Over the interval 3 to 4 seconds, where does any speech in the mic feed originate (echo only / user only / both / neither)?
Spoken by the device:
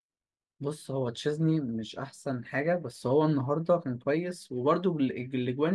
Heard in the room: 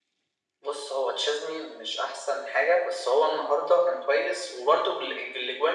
echo only